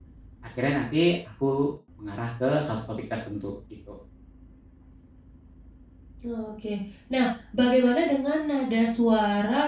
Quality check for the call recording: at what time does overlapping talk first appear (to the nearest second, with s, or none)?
none